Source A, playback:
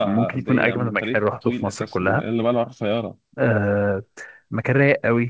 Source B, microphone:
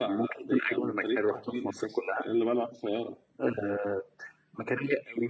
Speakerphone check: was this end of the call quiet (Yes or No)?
Yes